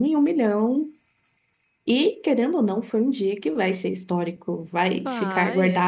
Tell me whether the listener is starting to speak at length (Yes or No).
No